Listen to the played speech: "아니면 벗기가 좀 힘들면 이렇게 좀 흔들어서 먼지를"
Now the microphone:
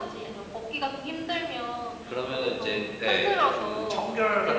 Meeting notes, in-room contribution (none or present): present